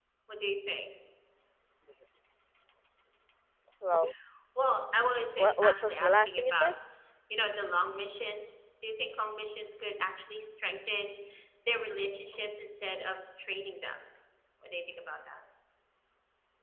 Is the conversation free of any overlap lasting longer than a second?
No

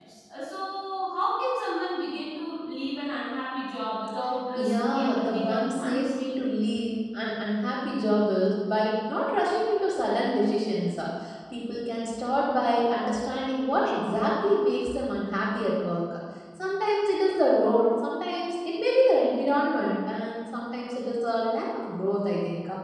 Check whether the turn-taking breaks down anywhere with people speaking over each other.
Yes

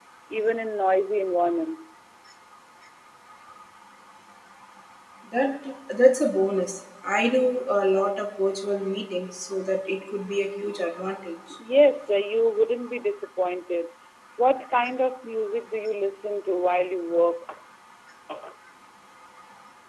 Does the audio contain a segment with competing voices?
No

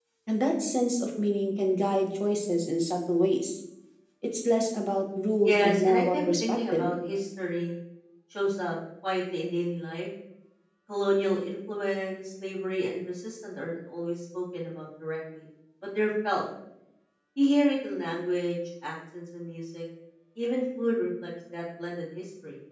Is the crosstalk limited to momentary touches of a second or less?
No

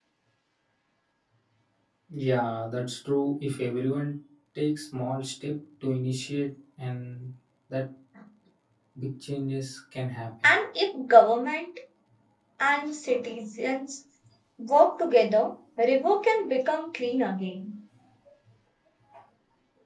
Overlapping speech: No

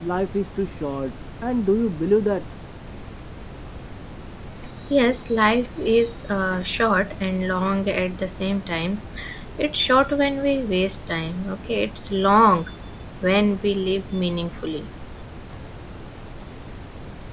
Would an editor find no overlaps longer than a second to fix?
Yes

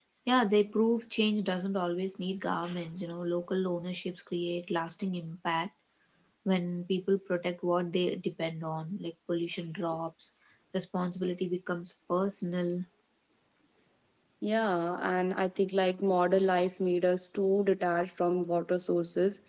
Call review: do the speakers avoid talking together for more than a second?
Yes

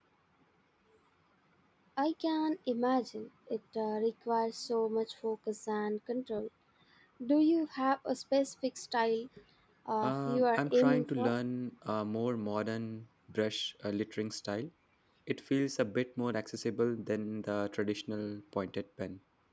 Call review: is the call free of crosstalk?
No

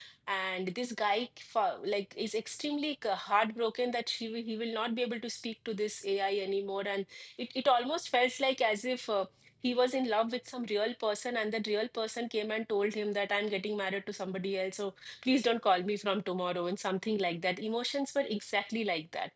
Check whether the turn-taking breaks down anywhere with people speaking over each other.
No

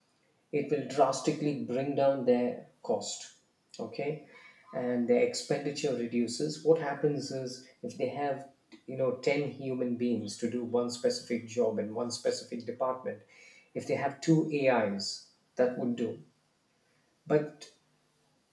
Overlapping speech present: No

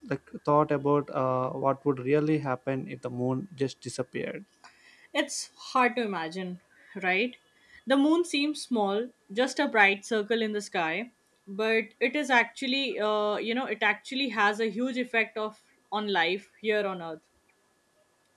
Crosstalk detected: No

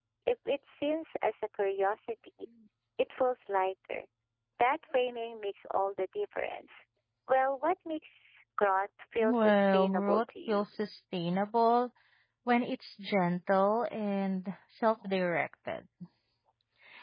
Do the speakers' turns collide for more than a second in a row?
Yes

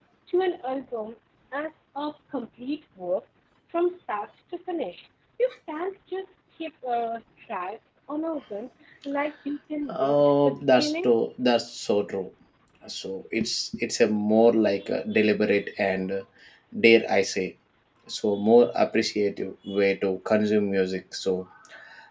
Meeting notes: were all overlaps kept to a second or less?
No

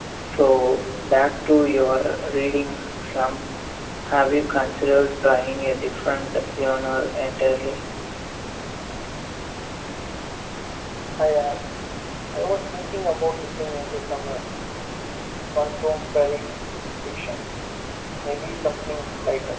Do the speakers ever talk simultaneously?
No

